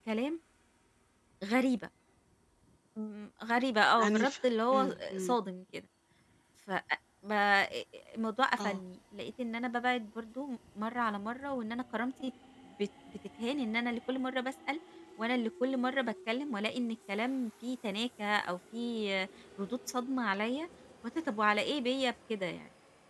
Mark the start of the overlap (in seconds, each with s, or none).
4.0 s